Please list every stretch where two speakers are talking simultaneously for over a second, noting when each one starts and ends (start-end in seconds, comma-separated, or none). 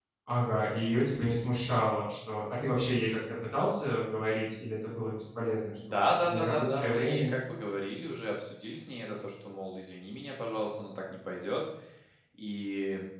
5.9-7.3